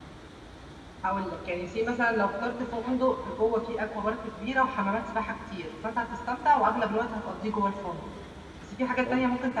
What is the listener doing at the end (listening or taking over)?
listening